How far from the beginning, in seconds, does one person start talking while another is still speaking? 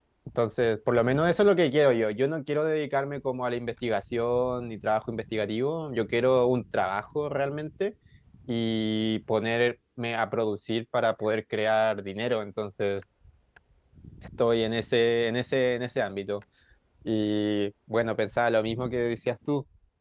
none

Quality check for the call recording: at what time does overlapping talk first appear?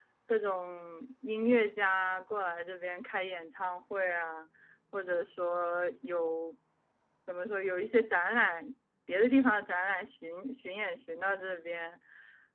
none

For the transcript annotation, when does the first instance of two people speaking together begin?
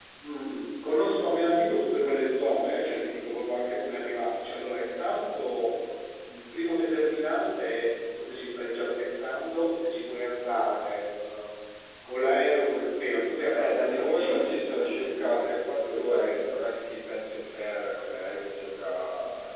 13 s

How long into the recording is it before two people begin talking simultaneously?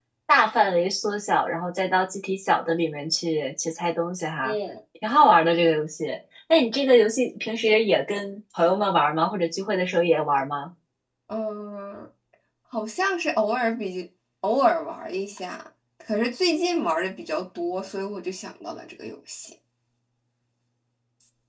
none

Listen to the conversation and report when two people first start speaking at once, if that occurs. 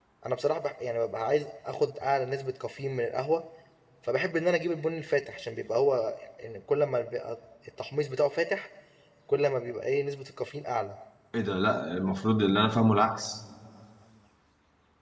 none

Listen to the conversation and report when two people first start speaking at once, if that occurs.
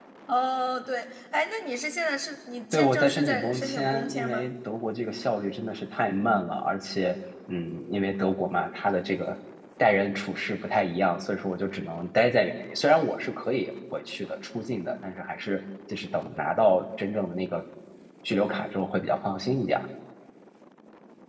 3 s

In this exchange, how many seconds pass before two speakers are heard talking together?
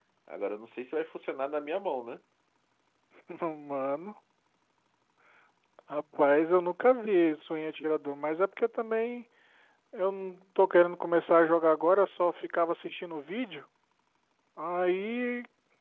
none

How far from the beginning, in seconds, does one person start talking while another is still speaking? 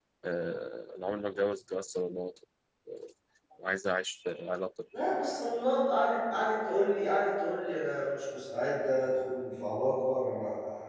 none

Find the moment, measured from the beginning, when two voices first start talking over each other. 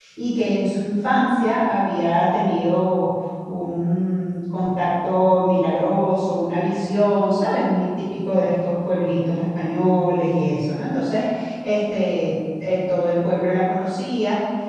none

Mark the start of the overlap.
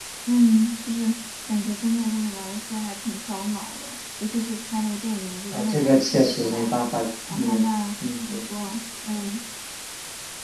6 s

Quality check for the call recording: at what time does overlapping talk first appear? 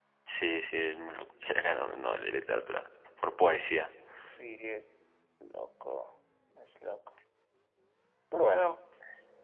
none

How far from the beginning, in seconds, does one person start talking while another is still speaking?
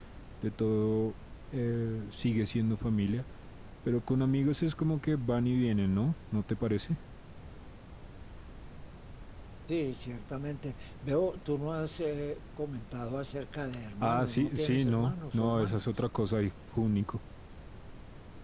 14 s

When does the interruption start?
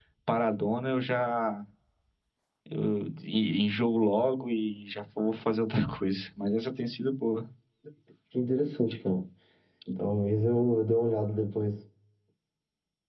none

